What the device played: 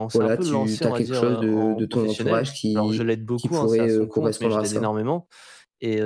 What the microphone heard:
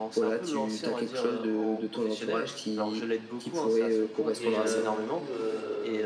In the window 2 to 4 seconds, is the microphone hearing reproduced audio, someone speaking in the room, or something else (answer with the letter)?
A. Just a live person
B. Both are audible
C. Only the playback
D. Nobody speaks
C